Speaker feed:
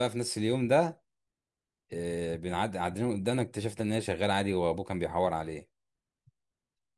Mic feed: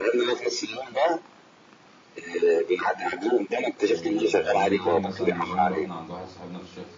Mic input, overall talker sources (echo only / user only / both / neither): both